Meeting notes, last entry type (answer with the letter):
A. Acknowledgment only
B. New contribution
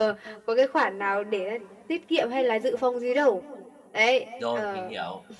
B